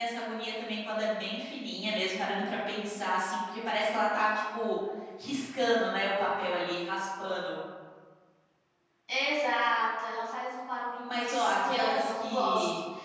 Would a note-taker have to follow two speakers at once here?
Yes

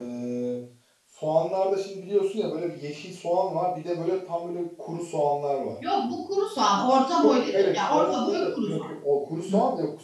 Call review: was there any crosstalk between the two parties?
Yes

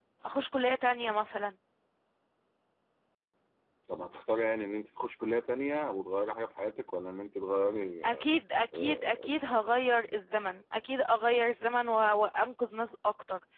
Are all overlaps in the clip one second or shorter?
Yes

